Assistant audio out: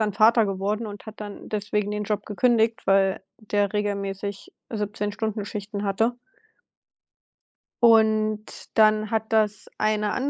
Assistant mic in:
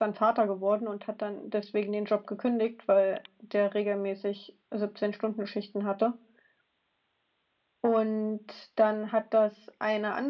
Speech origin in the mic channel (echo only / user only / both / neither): echo only